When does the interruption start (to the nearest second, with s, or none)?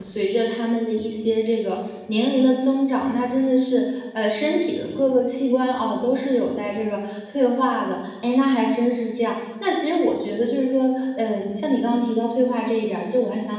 none